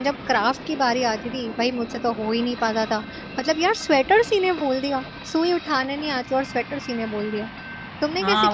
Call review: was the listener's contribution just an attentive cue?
No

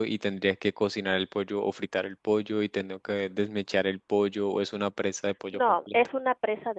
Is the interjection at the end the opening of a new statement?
Yes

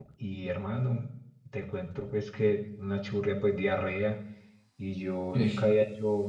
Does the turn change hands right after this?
No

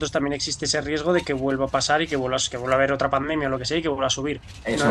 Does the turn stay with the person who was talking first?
No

